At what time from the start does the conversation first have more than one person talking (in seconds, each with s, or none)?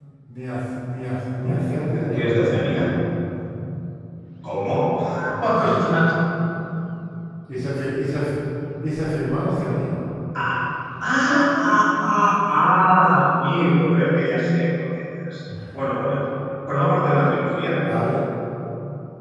1.3 s